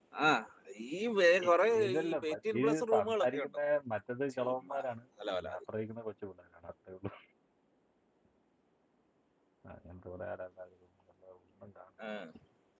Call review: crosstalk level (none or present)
present